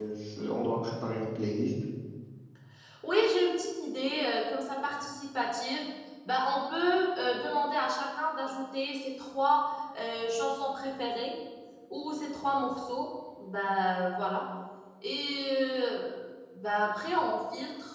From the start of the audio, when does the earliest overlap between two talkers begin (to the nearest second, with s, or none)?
none